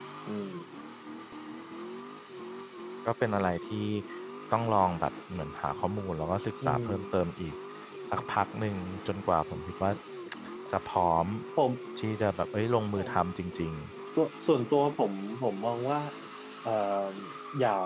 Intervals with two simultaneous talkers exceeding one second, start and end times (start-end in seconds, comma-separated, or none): none